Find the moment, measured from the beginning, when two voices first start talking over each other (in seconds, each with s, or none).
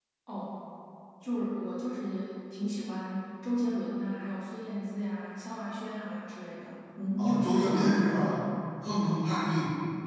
7.2 s